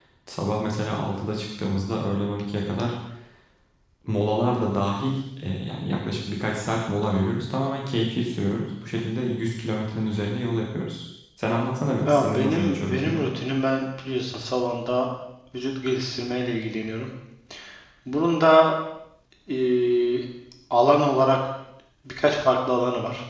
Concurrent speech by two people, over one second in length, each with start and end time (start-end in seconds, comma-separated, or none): 12.1-13.3